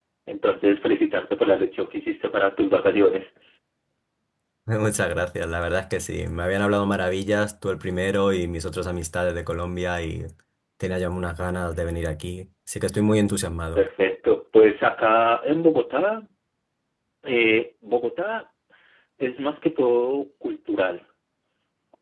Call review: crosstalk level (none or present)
none